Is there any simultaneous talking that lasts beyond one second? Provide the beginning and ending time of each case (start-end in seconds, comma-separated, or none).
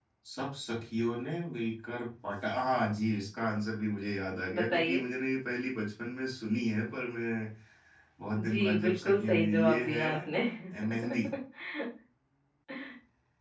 8.5-10.1